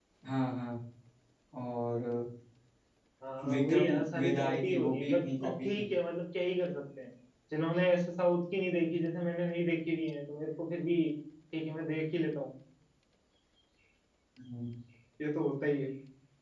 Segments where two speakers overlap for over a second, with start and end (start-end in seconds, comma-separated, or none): 3.5-5.8